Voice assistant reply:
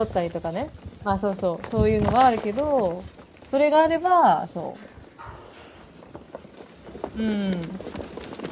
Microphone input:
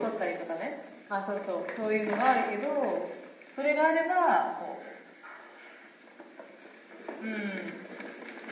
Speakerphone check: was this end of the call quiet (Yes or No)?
Yes